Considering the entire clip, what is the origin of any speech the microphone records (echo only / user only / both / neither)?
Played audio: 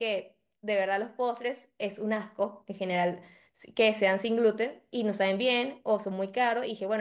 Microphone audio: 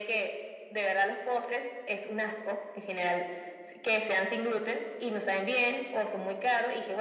echo only